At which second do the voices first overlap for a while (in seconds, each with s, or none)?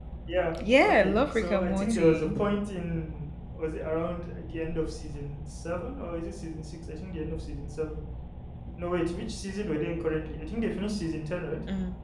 0.8 s